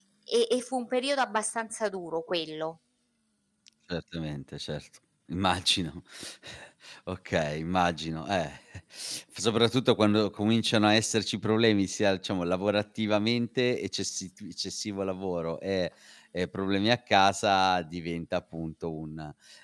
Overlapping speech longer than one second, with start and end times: none

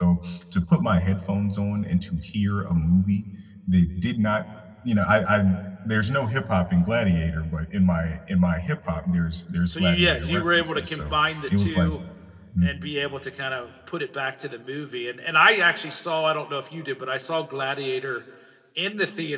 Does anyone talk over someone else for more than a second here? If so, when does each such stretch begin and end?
9.7-11.1

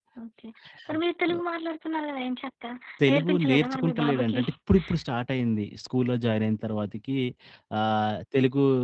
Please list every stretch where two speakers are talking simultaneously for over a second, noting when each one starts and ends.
3.1-4.4

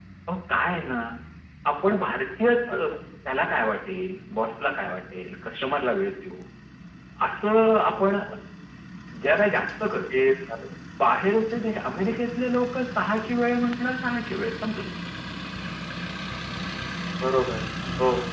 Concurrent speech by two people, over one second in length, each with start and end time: none

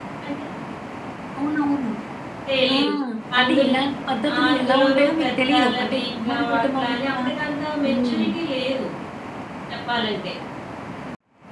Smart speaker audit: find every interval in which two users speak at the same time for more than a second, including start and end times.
4.5-7.1

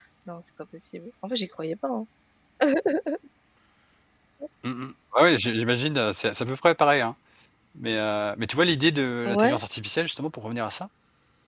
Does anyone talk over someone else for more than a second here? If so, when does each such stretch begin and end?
none

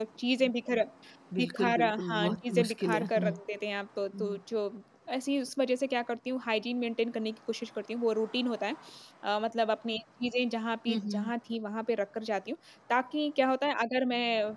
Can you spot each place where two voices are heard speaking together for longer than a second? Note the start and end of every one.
1.4-3.3

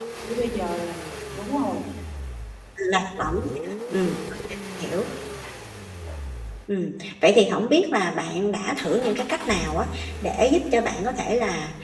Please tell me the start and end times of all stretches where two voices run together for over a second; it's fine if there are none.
none

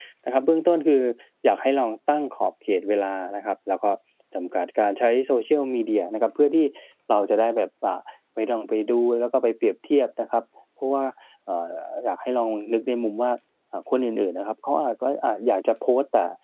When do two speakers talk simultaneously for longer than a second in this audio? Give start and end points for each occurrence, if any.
none

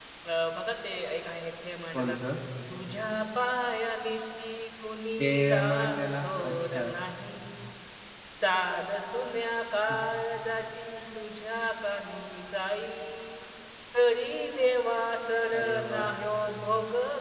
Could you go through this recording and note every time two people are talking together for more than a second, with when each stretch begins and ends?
5.2-6.9

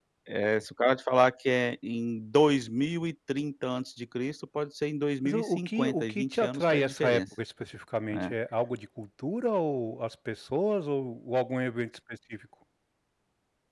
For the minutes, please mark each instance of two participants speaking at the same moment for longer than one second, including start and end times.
5.2-7.2

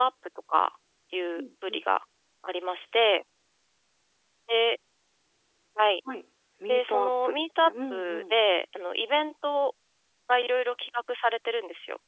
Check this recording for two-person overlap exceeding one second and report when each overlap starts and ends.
6.7-8.4

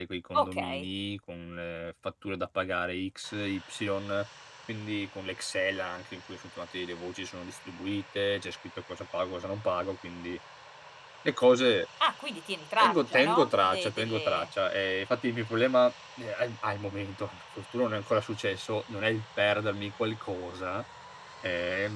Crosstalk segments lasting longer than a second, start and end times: 12.8-14.5

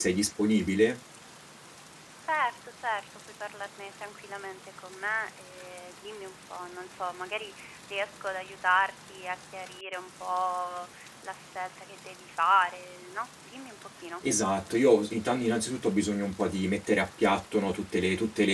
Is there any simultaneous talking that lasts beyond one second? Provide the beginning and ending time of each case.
none

